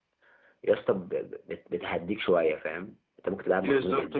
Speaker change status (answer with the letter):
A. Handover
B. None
A